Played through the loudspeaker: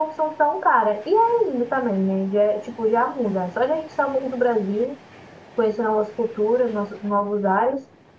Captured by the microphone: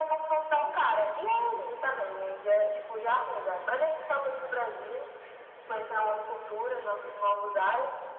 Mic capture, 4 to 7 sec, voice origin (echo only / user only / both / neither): echo only